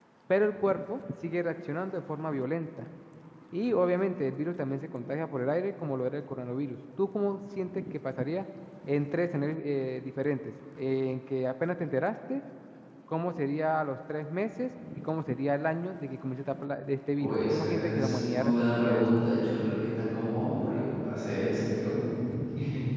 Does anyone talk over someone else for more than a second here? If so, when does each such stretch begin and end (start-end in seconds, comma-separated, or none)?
17.2-19.1